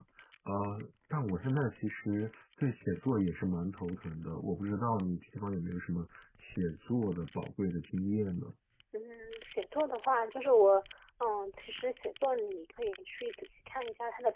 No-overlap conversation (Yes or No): Yes